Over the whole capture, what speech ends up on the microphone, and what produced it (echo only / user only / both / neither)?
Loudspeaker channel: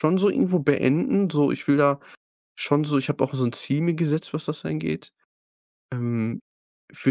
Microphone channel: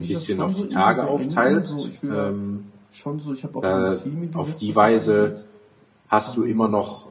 both